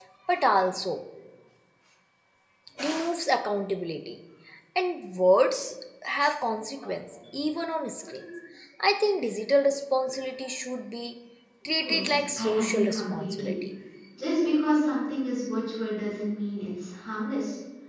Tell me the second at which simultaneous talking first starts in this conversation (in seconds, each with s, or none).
11.8 s